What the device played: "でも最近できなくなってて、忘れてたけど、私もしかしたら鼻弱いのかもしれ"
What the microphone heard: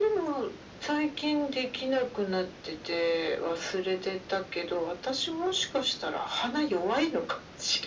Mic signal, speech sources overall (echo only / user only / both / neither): echo only